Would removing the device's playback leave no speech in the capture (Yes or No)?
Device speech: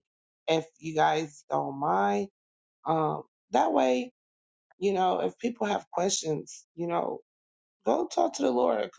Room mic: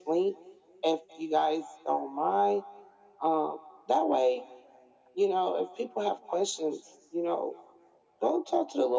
Yes